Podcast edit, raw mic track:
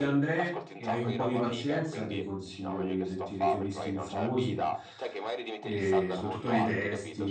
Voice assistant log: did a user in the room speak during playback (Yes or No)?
Yes